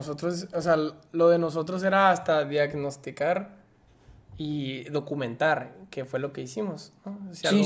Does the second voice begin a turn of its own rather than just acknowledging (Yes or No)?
Yes